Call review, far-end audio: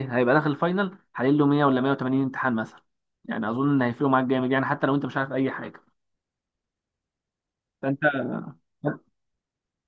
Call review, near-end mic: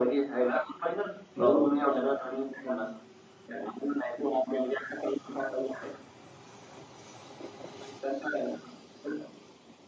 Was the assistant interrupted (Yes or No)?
Yes